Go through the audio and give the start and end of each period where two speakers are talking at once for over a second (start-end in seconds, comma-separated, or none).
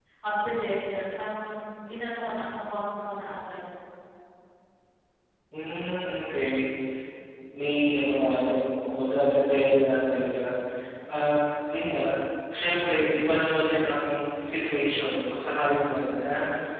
none